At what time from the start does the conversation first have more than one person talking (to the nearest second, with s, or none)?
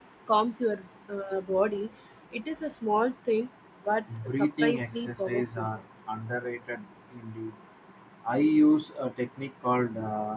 4 s